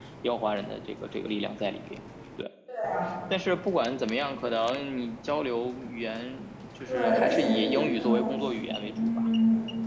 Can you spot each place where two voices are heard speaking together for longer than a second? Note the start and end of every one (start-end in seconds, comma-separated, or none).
6.9-9.2